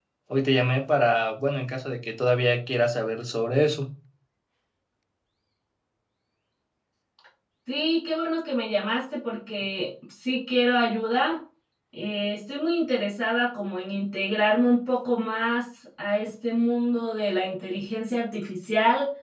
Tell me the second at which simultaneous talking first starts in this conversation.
none

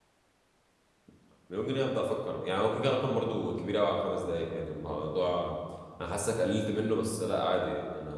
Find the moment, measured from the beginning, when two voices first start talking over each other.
none

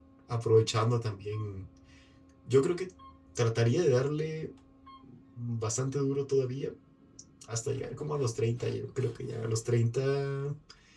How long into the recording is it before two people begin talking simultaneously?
none

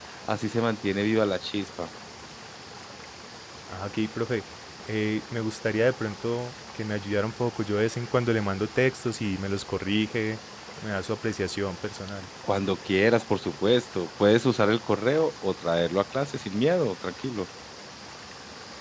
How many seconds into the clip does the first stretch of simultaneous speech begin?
none

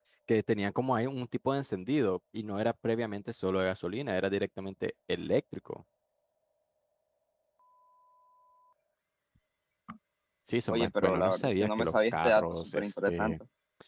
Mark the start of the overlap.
10.7 s

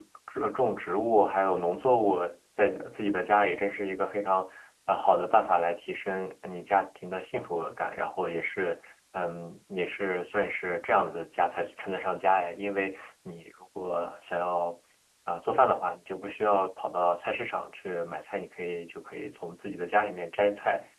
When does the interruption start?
none

